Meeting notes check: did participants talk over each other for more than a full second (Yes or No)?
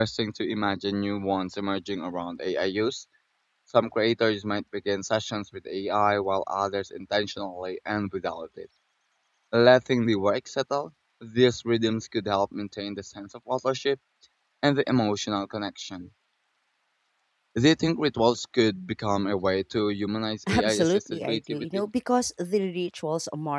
Yes